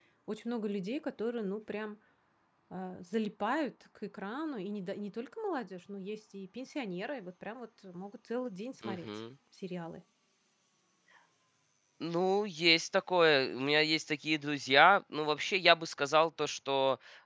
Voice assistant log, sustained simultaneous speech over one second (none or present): none